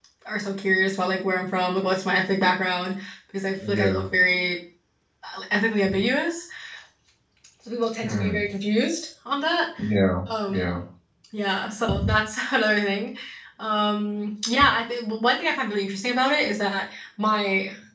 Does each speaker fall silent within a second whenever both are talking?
Yes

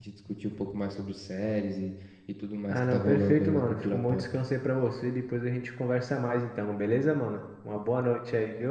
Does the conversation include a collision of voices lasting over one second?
Yes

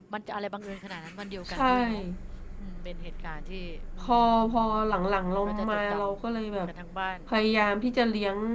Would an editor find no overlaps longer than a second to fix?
No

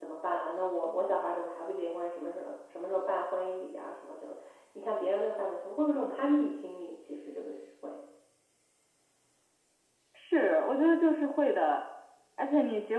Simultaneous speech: No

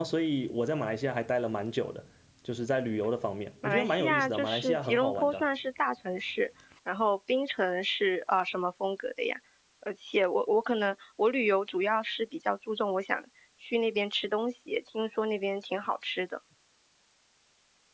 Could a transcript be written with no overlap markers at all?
No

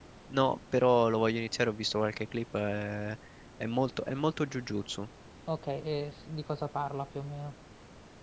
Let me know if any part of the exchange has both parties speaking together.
No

